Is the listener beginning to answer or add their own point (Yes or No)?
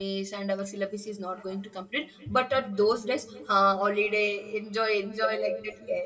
Yes